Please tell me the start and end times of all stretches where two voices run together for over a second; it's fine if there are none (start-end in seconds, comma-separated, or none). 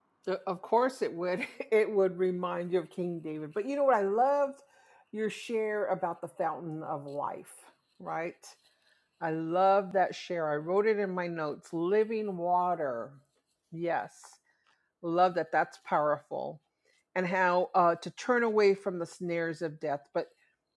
none